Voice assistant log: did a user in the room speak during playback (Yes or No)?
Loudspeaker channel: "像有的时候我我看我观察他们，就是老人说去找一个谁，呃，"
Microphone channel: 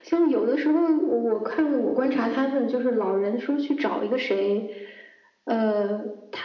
No